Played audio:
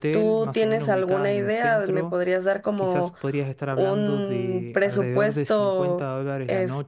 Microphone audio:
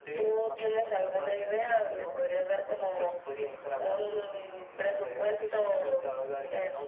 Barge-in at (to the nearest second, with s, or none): none